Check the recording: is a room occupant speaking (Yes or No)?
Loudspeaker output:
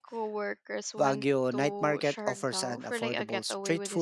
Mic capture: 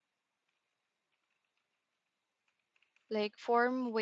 Yes